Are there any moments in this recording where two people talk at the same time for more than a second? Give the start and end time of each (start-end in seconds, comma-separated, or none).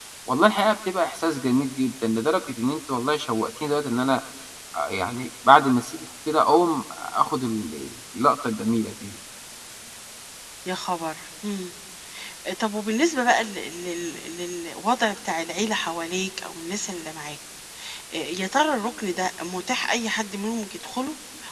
none